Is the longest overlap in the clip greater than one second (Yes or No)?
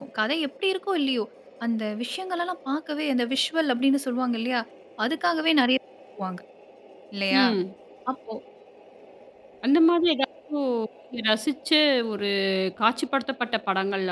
No